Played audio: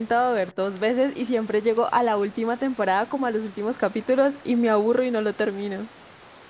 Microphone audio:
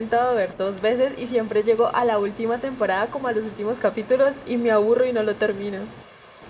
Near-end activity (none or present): none